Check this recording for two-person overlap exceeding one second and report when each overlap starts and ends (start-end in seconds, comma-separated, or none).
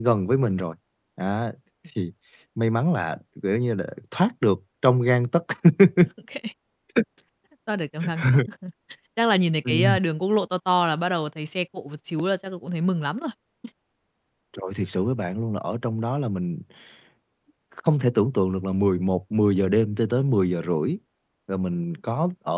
none